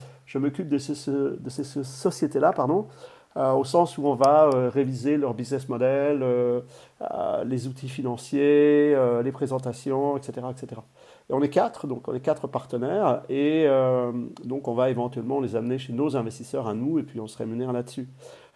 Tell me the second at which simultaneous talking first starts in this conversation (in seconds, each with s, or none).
none